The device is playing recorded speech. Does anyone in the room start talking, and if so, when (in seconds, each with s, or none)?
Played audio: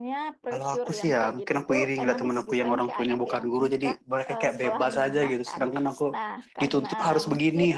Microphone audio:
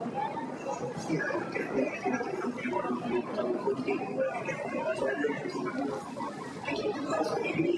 none